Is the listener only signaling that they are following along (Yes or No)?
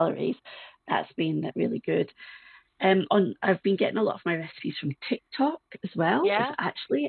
Yes